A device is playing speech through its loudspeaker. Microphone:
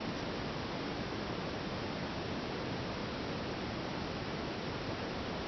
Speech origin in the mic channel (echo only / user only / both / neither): neither